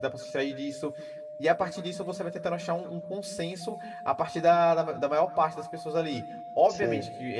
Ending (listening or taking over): listening